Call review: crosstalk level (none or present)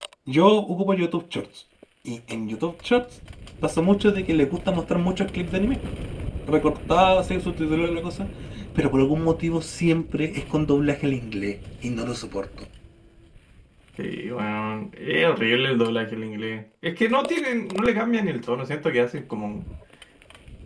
none